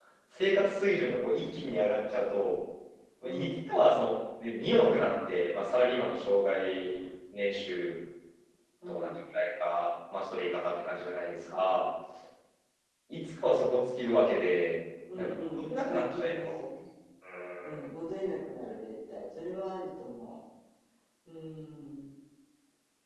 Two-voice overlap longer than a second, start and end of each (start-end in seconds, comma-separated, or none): 15.2-16.6